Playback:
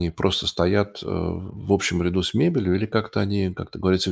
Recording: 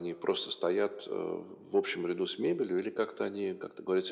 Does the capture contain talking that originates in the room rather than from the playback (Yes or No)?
No